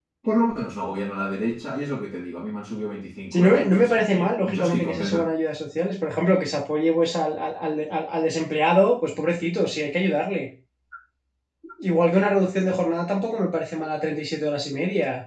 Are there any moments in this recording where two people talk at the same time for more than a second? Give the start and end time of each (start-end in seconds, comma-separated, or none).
3.3-5.2